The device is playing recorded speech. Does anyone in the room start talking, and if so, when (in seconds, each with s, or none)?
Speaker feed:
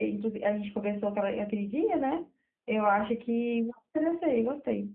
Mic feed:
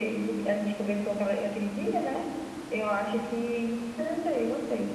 none